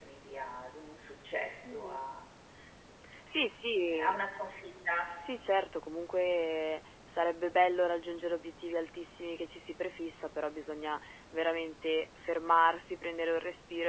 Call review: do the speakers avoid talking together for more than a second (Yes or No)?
Yes